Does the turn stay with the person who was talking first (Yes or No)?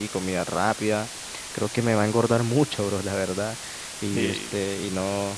Yes